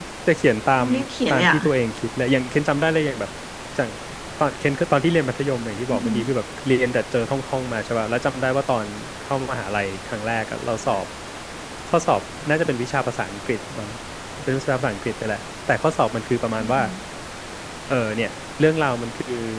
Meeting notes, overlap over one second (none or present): none